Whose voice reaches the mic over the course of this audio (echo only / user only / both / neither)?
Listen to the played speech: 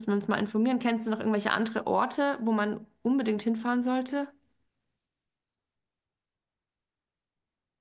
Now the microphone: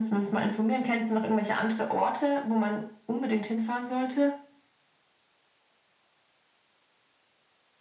echo only